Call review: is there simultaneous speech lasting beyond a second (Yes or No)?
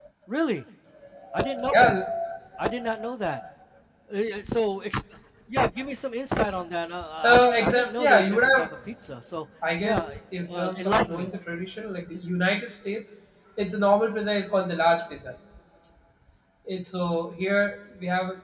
Yes